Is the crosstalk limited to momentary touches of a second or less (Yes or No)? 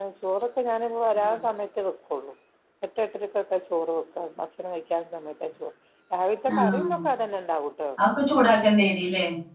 Yes